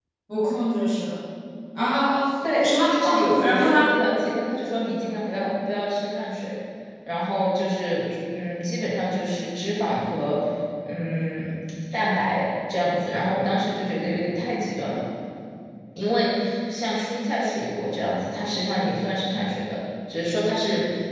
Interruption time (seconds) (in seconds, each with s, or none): 2.6 s